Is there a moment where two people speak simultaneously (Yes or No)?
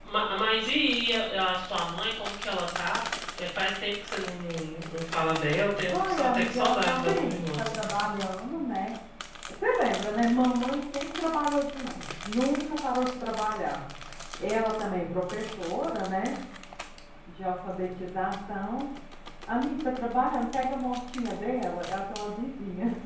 Yes